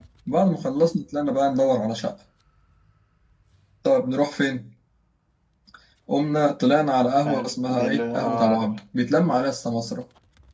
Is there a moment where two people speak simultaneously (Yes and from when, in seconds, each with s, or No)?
Yes, from 7.2 s